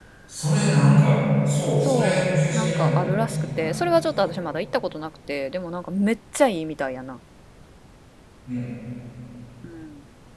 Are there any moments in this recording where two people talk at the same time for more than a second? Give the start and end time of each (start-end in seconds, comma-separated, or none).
1.8-4.3